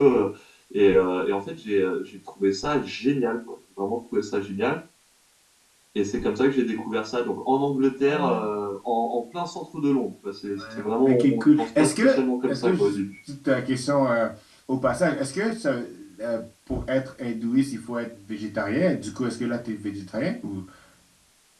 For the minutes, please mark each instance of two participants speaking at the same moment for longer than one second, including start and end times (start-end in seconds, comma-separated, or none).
11.1-13.0